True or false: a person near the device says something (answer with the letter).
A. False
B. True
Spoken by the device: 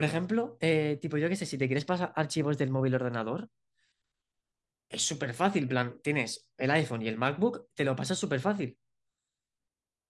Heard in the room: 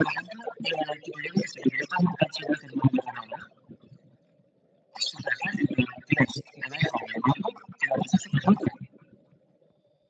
A